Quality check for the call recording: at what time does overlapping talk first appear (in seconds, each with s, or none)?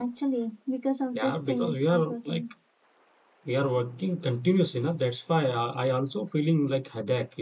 1.1 s